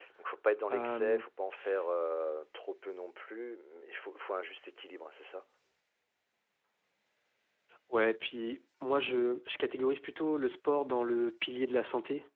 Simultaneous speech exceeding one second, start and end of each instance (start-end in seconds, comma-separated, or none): none